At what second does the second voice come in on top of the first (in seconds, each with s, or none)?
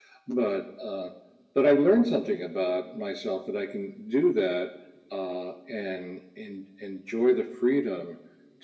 none